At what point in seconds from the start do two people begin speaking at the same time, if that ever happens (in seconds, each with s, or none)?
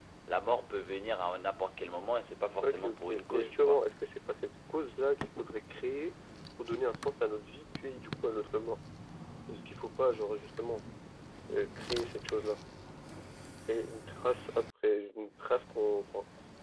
2.6 s